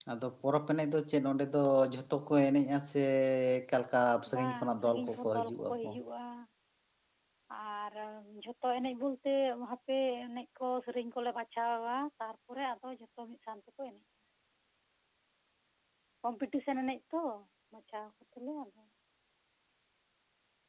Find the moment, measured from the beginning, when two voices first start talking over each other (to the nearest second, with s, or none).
4 s